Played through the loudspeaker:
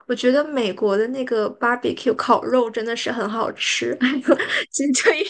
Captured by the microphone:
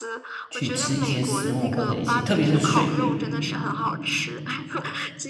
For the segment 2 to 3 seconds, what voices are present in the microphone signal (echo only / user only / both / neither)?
both